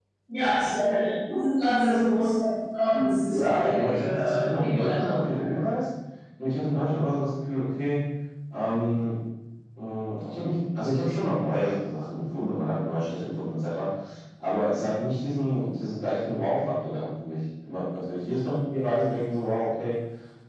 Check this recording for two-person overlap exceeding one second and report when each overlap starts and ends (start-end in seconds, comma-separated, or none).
3.3-5.1